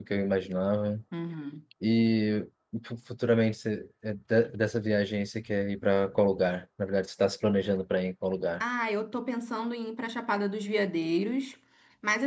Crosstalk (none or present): none